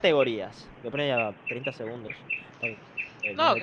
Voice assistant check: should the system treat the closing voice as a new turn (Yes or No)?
Yes